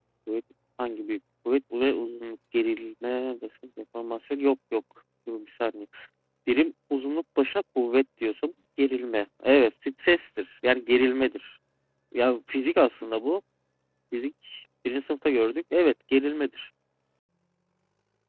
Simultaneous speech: No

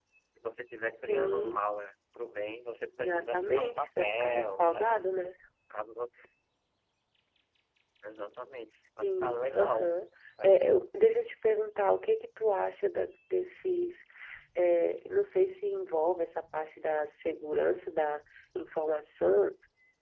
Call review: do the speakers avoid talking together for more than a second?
No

